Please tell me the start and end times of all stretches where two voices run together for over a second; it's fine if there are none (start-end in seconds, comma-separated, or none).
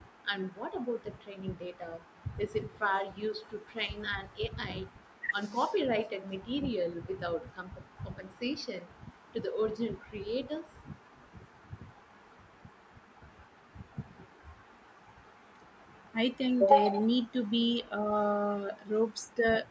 none